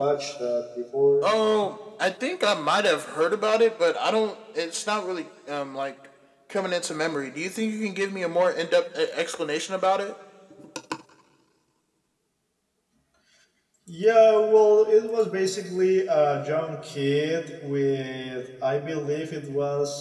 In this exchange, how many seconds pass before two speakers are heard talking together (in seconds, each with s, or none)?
none